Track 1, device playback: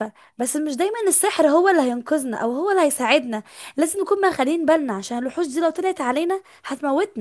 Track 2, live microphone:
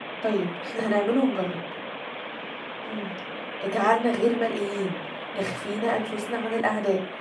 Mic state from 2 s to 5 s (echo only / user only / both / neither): user only